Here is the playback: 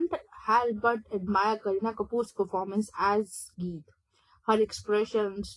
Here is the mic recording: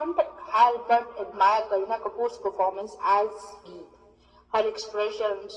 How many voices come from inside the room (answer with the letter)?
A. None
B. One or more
A